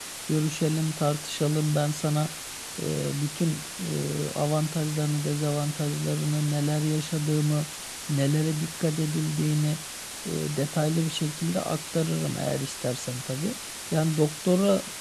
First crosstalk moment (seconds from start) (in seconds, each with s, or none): none